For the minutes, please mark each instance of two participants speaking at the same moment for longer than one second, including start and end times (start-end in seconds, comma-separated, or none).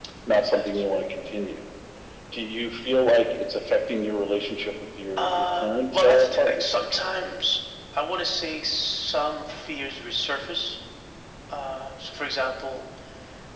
5.2-6.7